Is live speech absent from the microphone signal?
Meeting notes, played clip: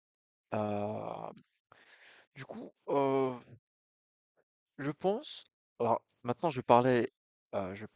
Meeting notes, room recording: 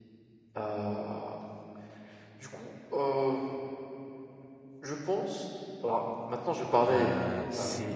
No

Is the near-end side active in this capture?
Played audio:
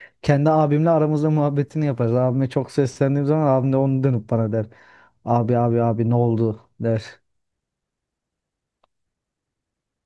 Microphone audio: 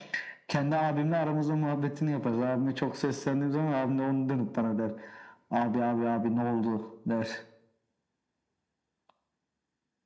No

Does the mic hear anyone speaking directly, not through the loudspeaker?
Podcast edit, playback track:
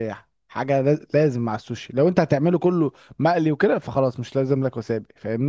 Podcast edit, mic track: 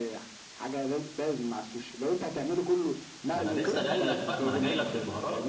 Yes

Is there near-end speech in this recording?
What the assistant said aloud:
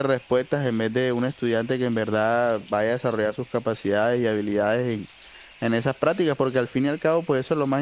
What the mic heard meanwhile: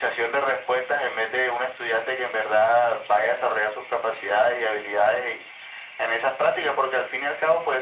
No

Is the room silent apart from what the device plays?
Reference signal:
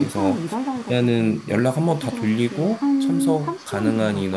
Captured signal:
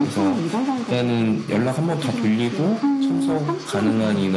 Yes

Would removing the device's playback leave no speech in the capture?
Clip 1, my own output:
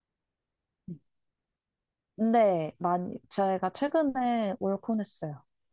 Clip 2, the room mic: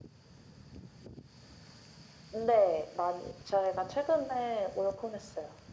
Yes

